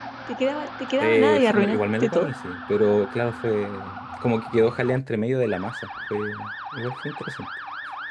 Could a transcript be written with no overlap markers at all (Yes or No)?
No